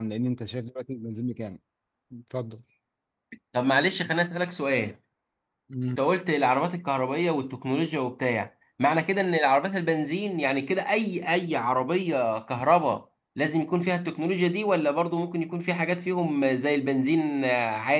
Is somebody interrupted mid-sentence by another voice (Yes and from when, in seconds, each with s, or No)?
No